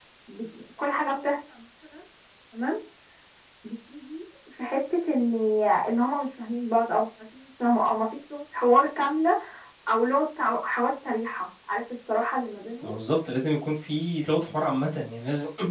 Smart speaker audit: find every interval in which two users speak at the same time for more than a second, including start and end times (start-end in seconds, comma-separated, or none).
none